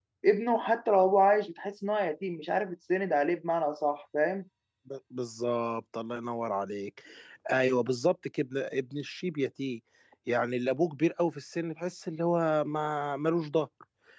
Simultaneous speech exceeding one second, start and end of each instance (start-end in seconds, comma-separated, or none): none